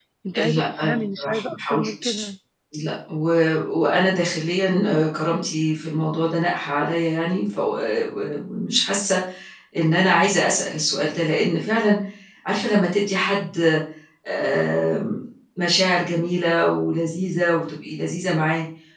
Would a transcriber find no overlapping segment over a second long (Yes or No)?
No